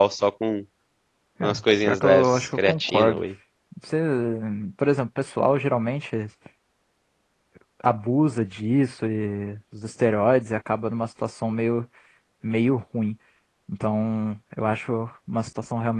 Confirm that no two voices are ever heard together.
No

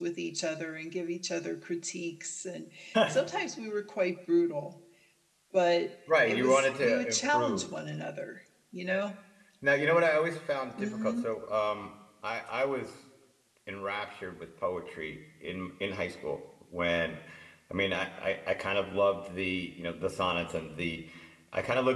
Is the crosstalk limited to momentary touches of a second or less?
No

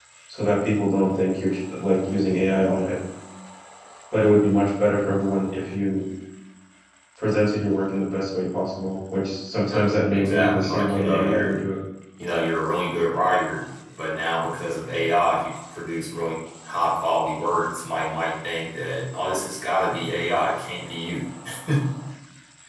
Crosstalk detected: Yes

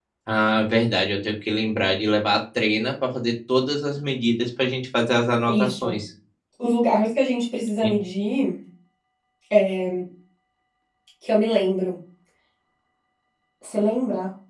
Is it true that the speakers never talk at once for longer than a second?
Yes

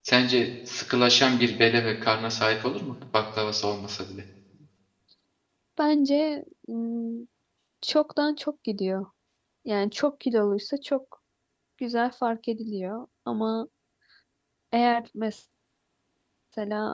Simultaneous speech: No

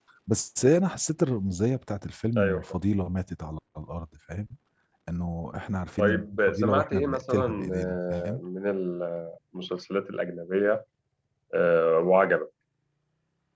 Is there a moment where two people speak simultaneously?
Yes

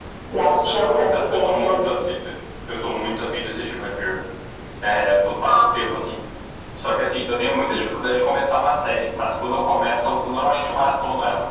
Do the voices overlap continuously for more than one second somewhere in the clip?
Yes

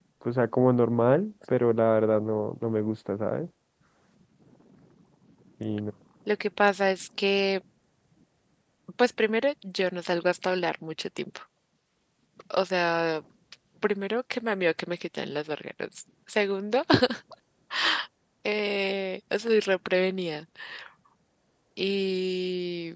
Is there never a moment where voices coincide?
Yes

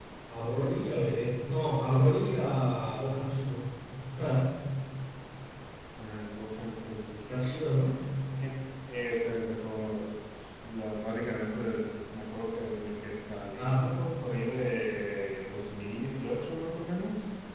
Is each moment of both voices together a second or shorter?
Yes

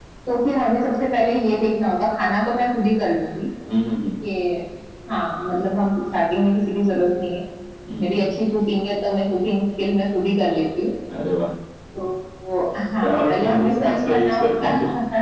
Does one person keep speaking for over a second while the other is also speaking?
Yes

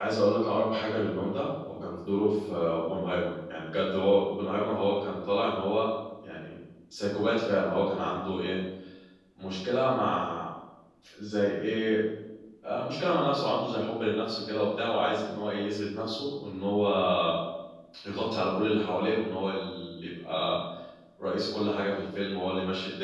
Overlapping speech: No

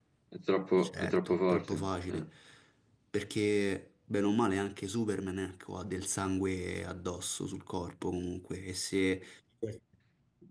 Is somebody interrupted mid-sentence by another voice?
Yes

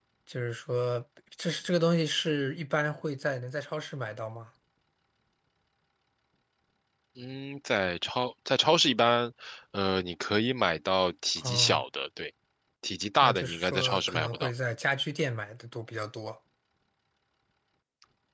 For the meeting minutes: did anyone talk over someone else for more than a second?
Yes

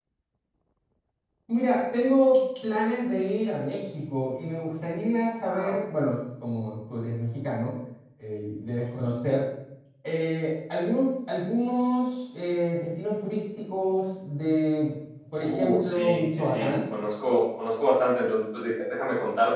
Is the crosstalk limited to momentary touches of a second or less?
No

